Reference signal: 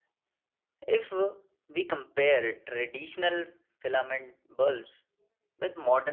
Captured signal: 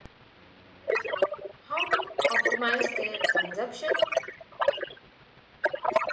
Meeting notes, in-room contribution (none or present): present